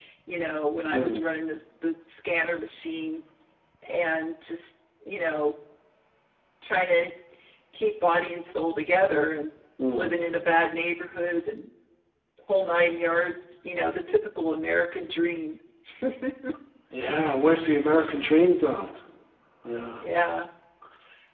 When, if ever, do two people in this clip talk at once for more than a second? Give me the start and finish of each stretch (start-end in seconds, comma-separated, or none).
none